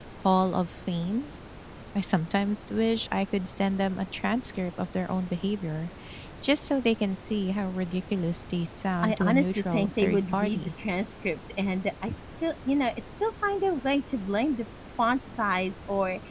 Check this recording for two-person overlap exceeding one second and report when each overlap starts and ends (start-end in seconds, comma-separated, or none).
9.0-10.7